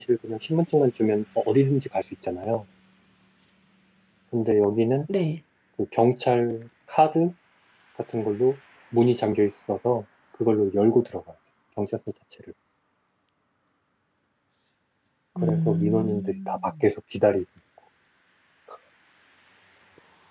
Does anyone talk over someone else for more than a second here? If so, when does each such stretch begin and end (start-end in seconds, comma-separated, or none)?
15.4-16.7